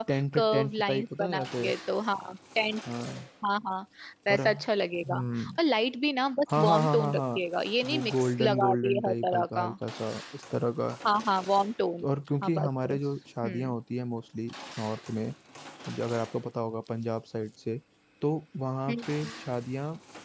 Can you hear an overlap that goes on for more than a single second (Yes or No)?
Yes